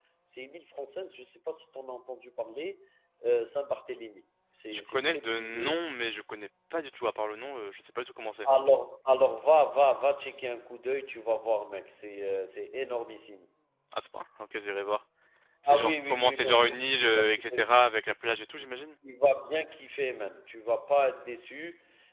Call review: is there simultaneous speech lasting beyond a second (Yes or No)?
Yes